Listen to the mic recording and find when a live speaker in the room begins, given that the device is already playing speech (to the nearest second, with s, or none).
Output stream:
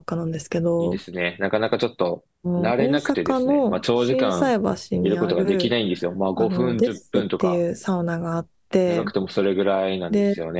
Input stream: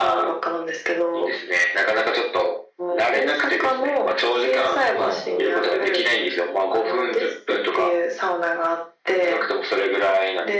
5 s